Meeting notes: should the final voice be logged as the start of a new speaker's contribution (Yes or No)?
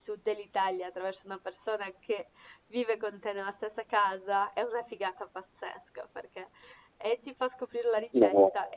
No